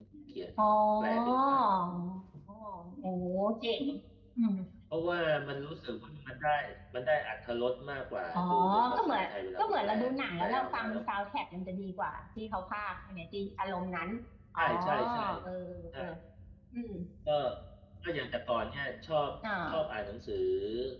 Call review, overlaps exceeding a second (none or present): present